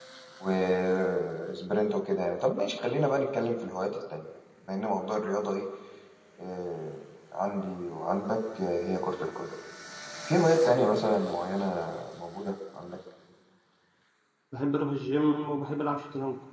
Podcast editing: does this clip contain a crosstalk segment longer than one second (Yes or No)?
No